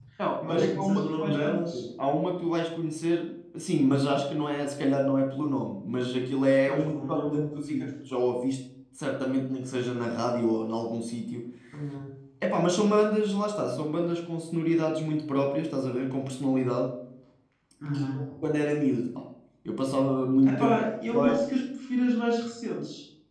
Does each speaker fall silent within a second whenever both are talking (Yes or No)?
No